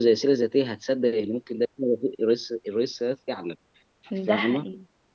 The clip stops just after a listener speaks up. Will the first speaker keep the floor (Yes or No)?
No